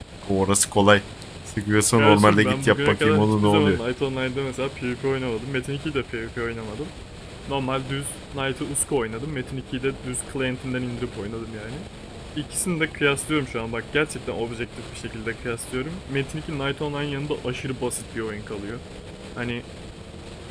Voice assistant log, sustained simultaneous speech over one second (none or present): present